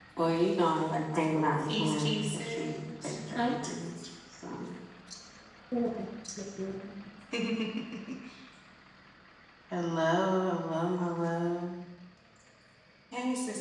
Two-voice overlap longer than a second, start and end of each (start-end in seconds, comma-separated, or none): 1.7-3.5